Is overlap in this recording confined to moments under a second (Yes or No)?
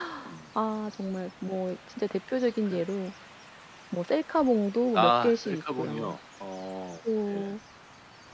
No